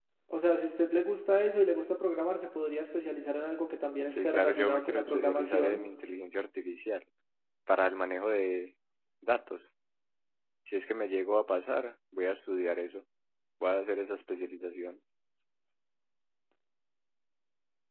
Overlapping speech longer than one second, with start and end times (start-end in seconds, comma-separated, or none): 4.1-5.8